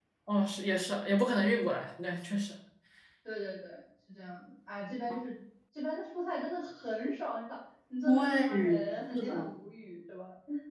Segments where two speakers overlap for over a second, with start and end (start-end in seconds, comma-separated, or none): 8.0-9.5